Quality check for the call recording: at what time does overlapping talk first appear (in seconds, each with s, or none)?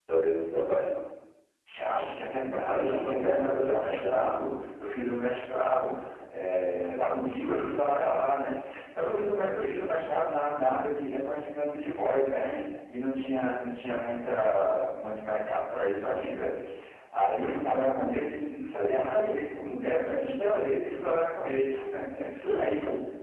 2.5 s